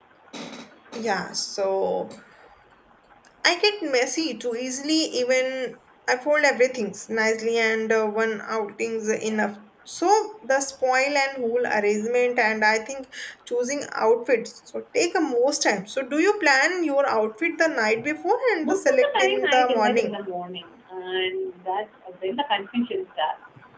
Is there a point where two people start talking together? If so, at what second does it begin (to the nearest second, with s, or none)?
19 s